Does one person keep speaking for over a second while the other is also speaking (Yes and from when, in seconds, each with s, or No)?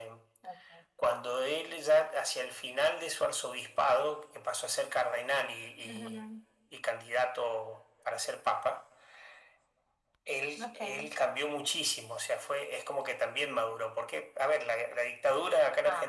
No